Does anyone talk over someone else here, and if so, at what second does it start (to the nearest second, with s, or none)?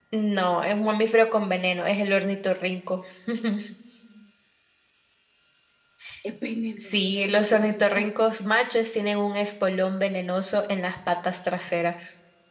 7 s